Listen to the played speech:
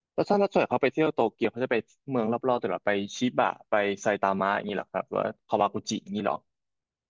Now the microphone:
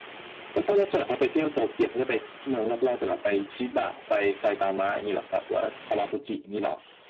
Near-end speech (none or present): none